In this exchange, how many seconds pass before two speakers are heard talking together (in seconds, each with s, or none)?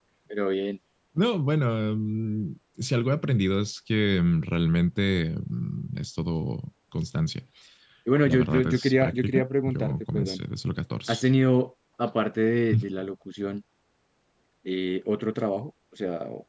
8.2 s